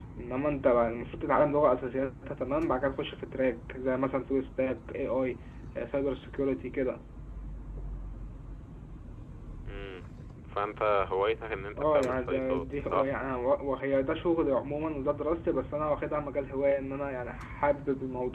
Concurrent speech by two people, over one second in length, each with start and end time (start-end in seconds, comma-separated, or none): 11.8-13.1